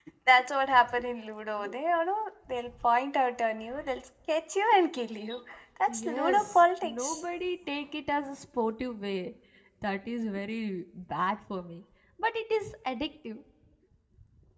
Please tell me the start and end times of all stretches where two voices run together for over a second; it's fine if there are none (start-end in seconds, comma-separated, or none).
5.9-7.2